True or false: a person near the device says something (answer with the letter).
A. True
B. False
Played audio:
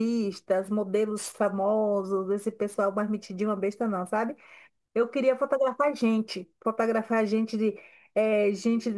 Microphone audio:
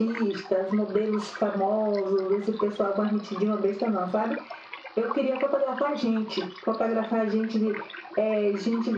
B